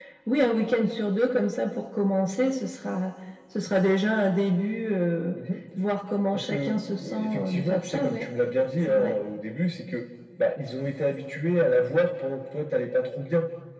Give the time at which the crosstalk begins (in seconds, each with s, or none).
6.3 s